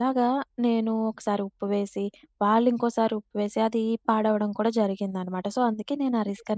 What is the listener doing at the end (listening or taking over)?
taking over